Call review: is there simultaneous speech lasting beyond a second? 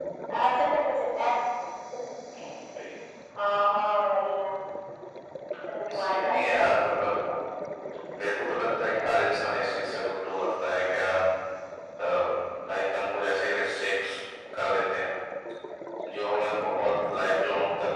Yes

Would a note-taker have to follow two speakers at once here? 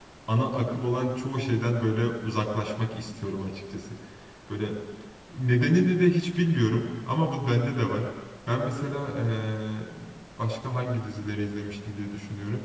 No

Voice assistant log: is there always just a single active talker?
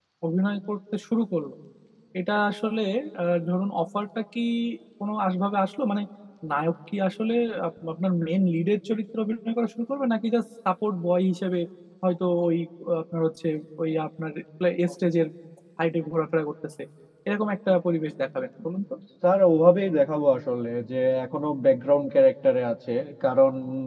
Yes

